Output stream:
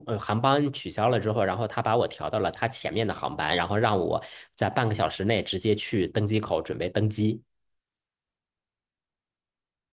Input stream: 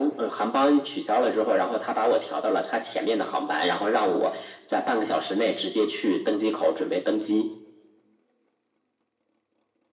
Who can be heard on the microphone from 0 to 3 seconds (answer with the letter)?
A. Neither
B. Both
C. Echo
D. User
C